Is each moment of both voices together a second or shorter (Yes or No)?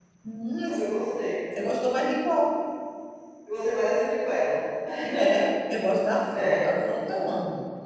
Yes